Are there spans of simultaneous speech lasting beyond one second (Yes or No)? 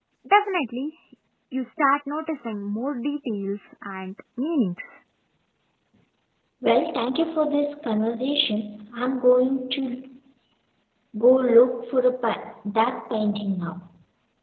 No